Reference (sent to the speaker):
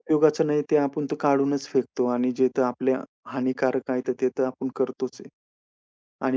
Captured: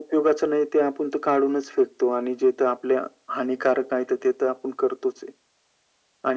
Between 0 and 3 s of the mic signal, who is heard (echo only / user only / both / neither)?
echo only